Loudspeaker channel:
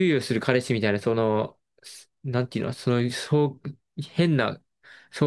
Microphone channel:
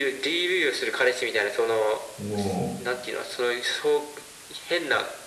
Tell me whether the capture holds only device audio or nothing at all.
No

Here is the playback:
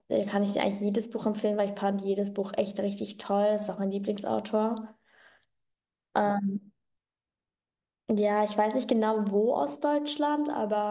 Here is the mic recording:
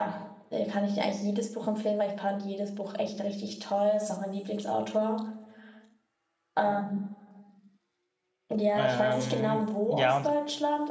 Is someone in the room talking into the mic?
Yes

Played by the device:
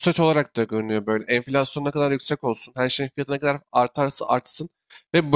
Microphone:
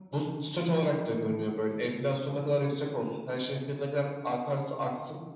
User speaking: No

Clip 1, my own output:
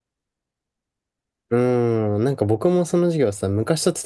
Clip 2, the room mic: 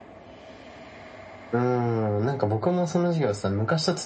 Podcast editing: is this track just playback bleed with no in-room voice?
Yes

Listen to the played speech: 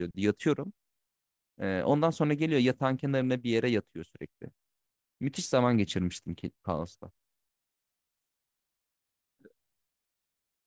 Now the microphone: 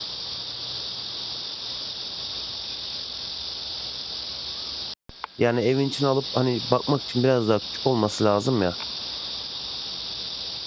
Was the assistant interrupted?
Yes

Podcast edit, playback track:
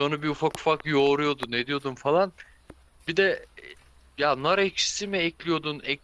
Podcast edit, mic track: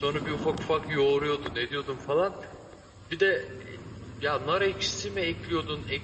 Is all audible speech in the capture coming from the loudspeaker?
Yes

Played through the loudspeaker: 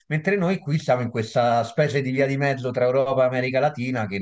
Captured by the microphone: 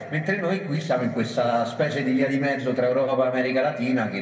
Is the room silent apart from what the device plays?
Yes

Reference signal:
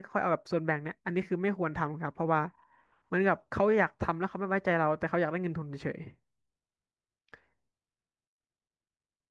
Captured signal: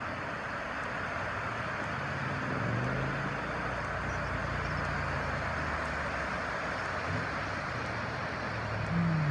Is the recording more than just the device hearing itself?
No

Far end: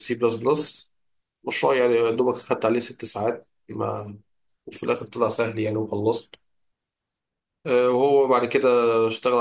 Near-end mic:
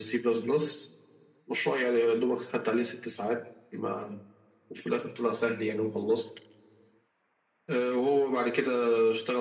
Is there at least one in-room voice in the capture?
No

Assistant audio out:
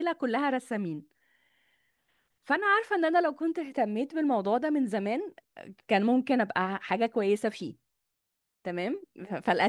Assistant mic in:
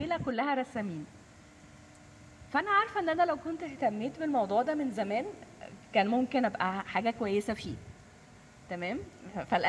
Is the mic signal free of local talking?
Yes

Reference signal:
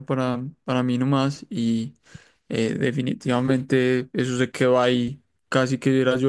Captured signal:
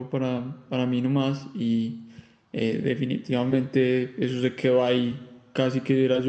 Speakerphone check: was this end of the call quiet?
Yes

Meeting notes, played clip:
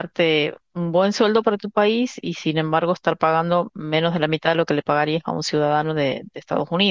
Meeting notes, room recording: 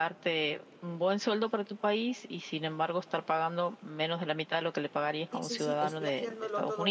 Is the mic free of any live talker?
No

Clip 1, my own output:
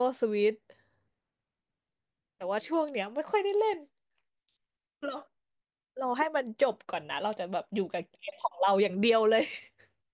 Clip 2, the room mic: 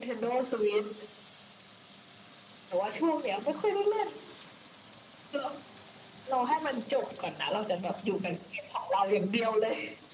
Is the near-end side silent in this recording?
Yes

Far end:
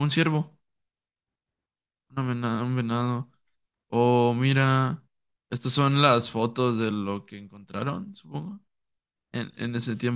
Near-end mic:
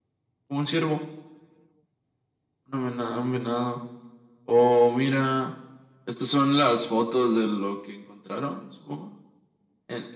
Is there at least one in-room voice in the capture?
No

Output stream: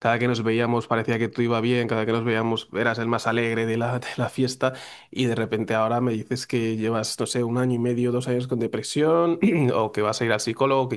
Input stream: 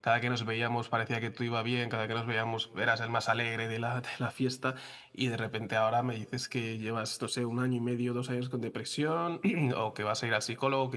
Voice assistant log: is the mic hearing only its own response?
Yes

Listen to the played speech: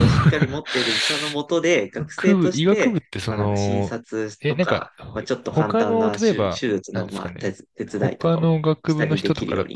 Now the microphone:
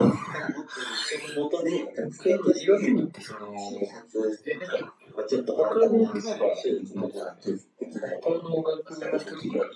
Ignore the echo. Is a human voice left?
No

